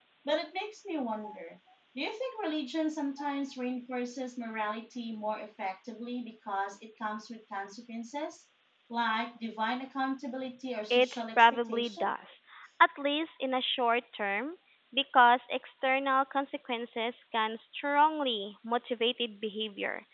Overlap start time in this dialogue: 10.9 s

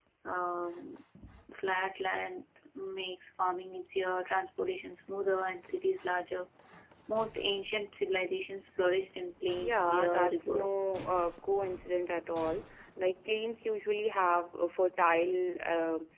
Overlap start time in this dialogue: 9.6 s

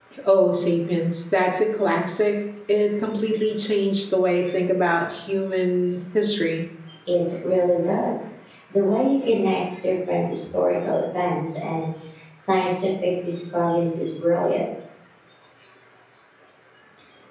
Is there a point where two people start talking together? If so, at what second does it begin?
none

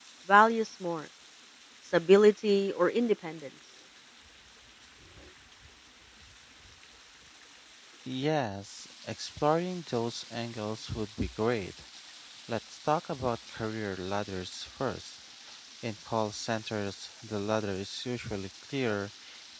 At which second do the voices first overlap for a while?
none

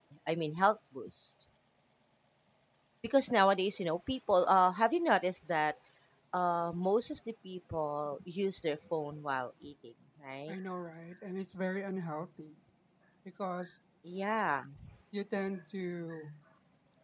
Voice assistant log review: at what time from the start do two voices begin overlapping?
none

